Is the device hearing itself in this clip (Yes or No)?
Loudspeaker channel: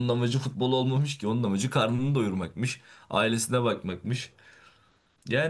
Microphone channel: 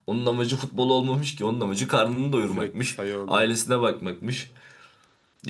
Yes